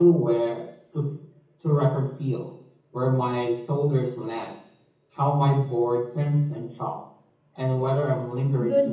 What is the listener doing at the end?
taking over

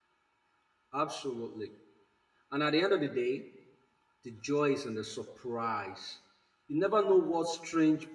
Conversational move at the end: listening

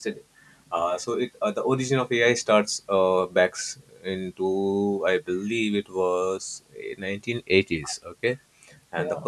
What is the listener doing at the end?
listening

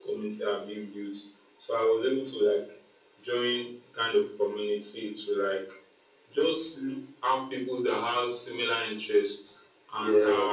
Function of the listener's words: listening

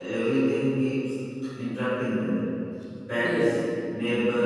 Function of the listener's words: listening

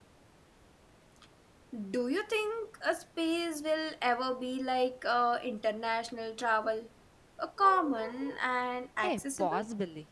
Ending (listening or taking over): taking over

